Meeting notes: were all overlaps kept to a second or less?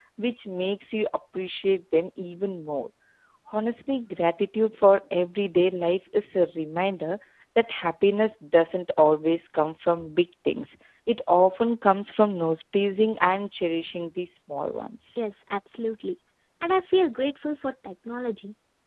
Yes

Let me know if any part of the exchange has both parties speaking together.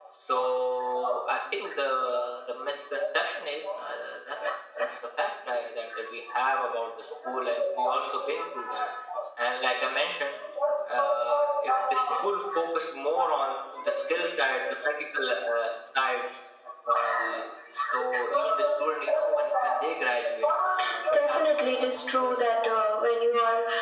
Yes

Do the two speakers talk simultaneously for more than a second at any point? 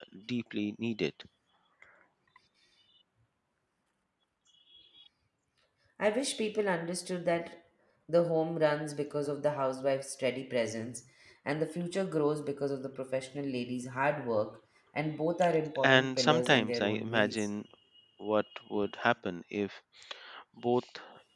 Yes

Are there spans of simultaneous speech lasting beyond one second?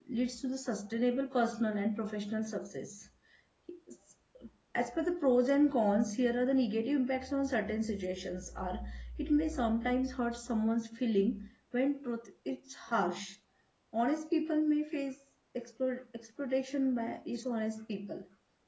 No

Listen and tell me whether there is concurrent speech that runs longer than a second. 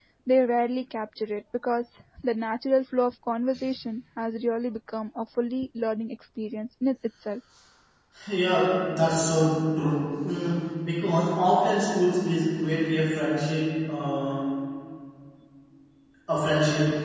No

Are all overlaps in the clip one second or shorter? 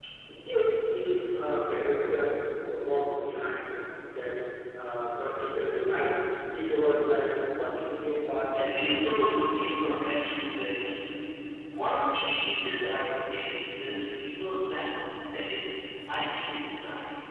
No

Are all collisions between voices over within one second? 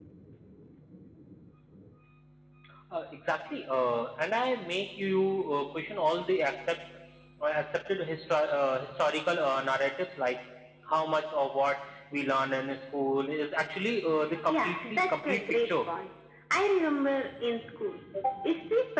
No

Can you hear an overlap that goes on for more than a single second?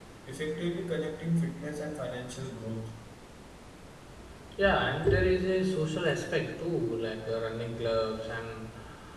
No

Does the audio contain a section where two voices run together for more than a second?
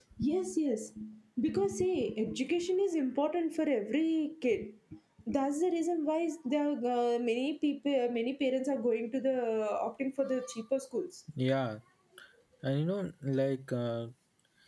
No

